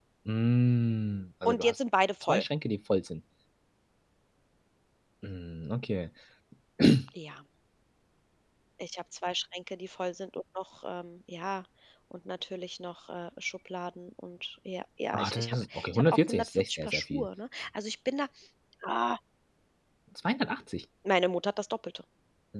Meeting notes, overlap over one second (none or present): present